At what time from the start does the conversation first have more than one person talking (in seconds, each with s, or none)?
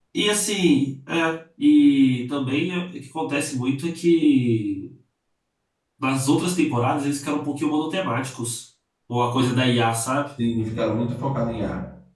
none